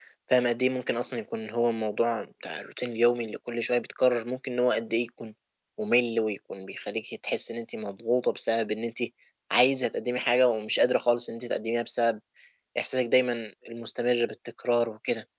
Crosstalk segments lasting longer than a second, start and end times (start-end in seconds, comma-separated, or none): none